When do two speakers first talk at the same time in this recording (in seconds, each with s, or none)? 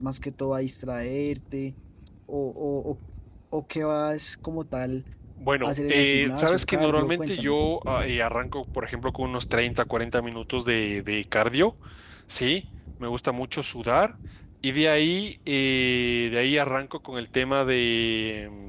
5.6 s